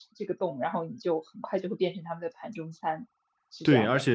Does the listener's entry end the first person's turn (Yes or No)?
Yes